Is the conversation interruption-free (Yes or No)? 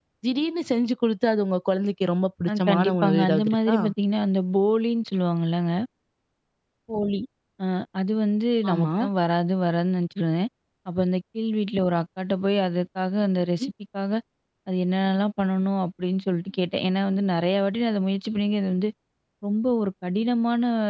No